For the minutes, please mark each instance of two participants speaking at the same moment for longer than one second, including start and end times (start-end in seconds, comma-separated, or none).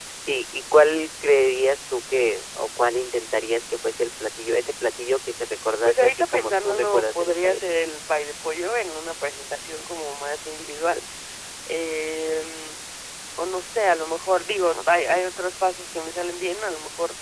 5.8-7.6